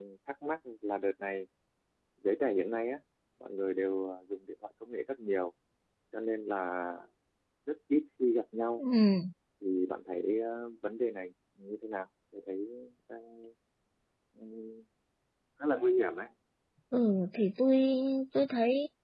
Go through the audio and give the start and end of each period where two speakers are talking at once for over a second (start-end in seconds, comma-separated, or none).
none